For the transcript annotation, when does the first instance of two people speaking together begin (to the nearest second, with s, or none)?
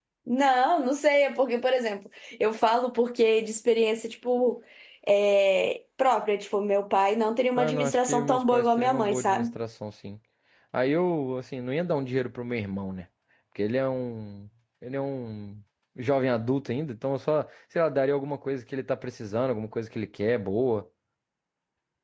8 s